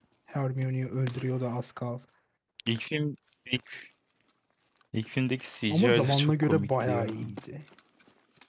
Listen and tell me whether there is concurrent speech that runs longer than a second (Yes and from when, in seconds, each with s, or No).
Yes, from 5.7 s